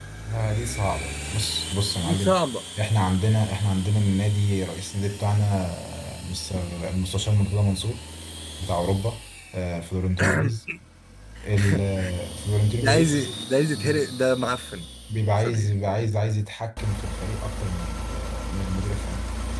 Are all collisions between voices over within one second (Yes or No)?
Yes